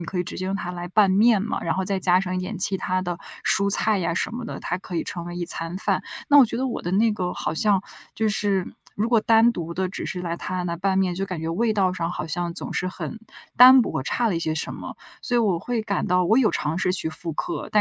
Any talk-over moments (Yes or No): No